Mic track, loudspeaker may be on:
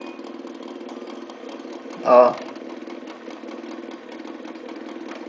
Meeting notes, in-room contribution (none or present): present